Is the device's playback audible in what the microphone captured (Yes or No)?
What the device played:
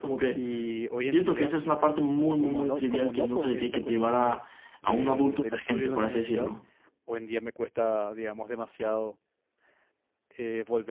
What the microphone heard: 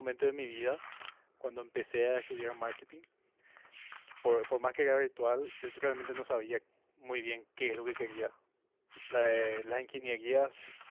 No